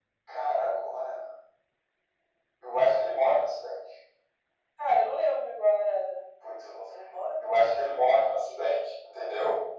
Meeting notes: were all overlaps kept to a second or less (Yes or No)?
Yes